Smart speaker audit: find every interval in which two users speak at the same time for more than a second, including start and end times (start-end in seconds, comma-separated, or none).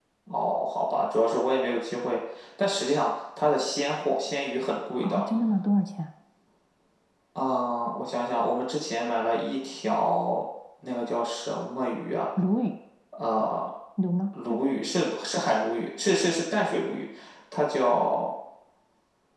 none